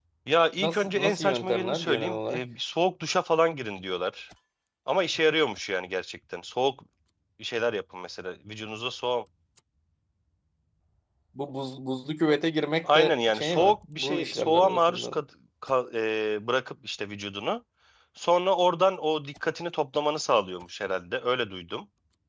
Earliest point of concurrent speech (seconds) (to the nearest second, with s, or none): 1 s